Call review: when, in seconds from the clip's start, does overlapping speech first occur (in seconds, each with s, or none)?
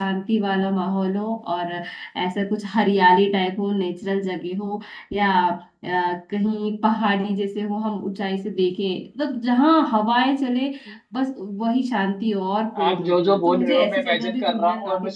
12.8 s